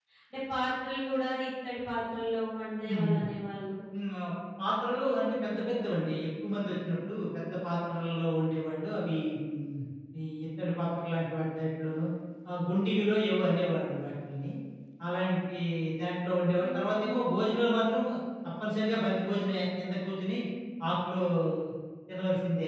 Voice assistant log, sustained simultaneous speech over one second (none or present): none